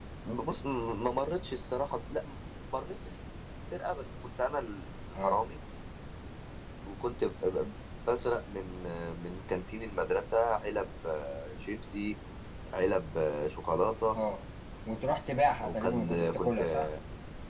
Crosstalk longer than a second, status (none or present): present